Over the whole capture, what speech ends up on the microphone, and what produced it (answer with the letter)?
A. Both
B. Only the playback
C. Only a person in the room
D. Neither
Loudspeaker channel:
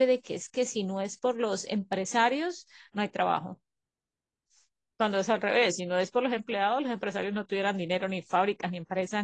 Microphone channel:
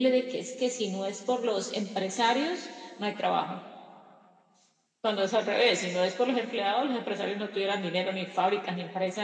B